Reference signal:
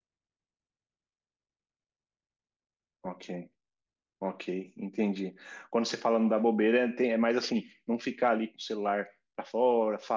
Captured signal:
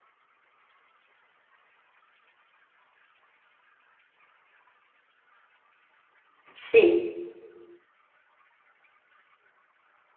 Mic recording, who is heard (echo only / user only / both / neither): user only